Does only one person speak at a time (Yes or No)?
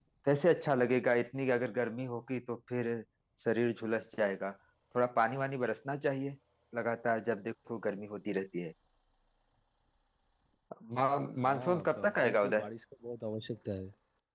No